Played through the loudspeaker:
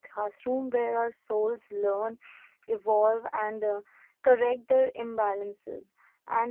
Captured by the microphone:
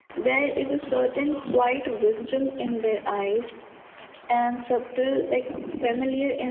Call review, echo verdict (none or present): none